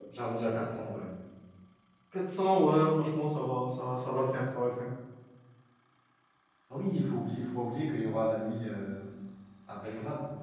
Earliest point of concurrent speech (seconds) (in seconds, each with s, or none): none